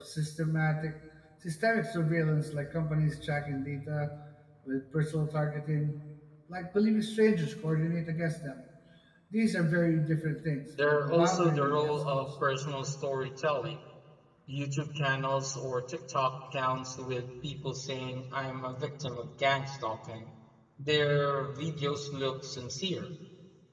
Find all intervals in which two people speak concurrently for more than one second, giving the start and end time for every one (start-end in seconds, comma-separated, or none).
10.8-12.2